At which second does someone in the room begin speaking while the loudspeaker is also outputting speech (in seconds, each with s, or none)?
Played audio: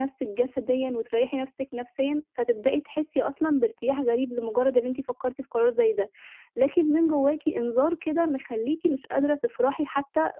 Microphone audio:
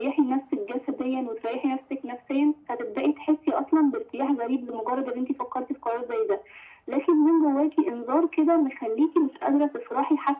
none